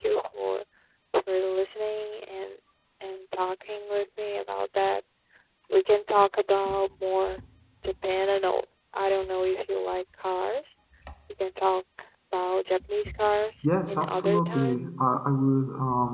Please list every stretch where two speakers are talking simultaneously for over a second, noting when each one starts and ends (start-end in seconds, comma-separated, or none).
13.6-14.8